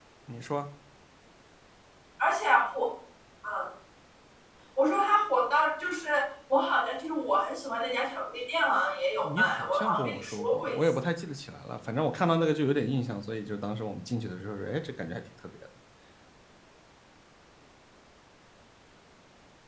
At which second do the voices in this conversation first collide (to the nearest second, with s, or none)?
9 s